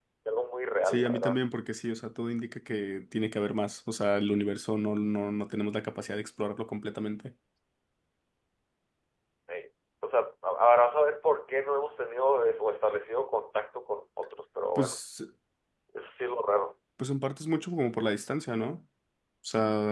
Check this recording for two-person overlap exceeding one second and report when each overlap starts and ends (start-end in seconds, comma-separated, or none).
none